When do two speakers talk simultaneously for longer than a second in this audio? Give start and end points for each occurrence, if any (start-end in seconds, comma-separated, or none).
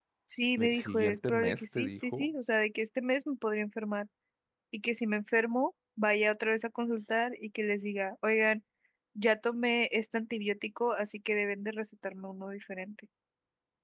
0.6-2.3